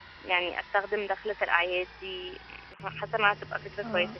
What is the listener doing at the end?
taking over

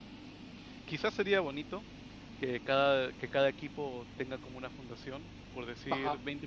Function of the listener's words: listening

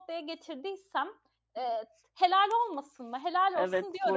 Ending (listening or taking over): taking over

